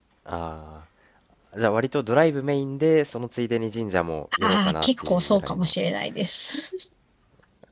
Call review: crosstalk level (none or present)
present